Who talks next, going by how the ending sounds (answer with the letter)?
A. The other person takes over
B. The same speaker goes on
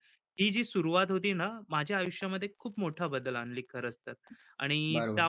A